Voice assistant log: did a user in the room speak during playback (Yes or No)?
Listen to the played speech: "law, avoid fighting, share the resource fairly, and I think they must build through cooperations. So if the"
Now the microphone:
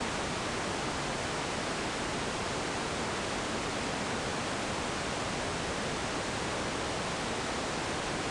No